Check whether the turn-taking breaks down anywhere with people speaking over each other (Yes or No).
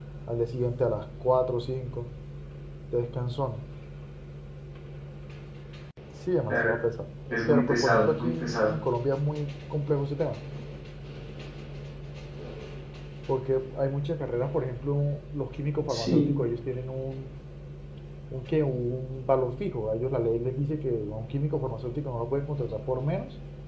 Yes